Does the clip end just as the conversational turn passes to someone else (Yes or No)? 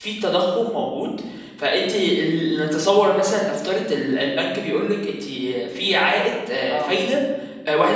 No